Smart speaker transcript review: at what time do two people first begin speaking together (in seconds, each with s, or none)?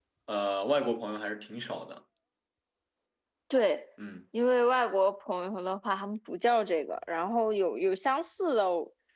none